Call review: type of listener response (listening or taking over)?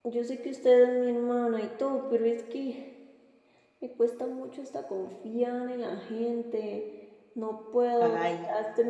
listening